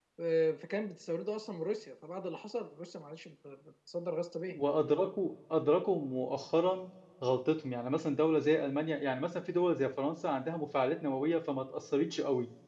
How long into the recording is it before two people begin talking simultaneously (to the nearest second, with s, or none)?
none